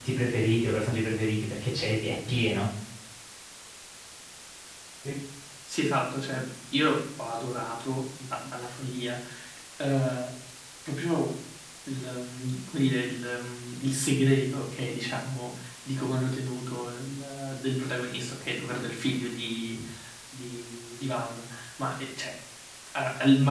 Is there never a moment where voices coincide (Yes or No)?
Yes